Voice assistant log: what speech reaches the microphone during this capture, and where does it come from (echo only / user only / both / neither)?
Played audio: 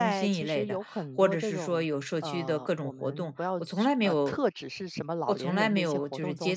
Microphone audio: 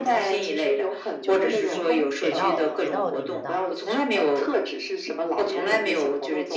both